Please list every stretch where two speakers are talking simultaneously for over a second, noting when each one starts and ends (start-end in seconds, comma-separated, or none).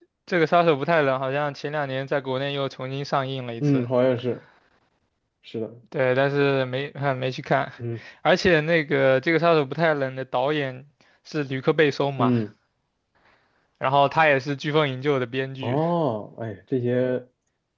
none